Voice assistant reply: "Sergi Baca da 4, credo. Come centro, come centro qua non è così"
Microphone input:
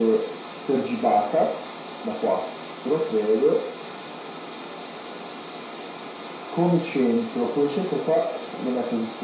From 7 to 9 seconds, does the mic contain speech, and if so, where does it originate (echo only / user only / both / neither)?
echo only